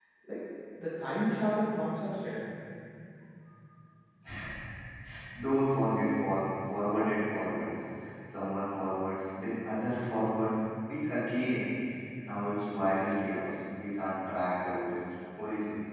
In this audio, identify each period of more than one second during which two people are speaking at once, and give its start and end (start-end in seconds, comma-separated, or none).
none